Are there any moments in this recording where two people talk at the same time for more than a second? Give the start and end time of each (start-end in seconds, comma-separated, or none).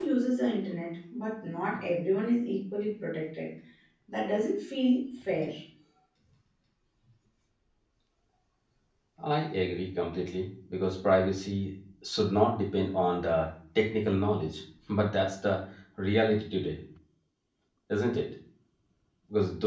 none